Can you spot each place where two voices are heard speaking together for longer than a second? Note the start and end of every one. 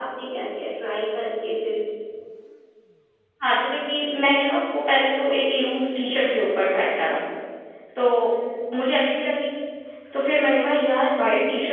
none

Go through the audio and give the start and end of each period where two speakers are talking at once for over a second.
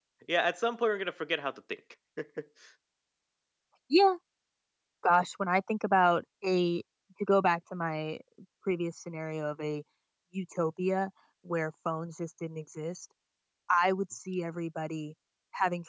none

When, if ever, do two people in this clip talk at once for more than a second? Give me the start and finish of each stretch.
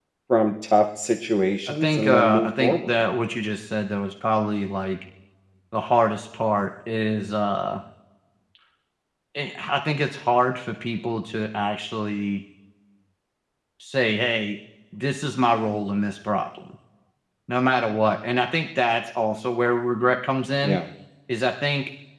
1.8-3.0

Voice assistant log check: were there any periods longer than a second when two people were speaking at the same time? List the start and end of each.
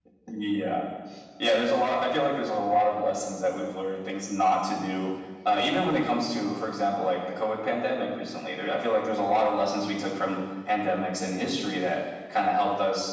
none

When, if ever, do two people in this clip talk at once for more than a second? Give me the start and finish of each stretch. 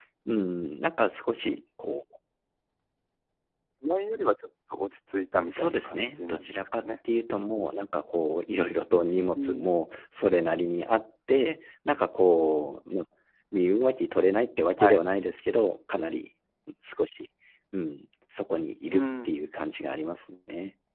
5.5-6.9

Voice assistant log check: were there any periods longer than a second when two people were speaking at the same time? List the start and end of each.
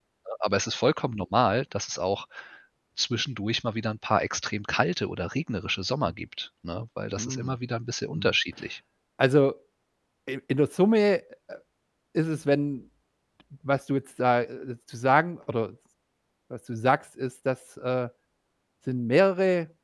none

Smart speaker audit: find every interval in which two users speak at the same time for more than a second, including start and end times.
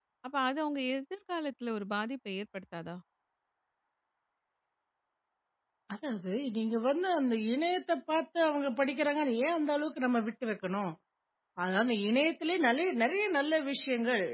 none

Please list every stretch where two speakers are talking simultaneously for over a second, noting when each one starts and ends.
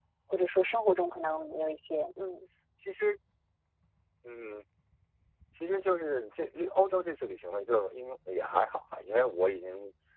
none

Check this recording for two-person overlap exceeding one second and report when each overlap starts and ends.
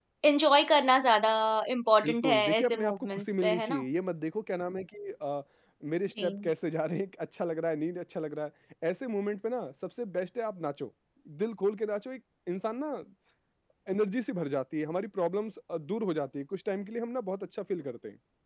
2.0-3.8

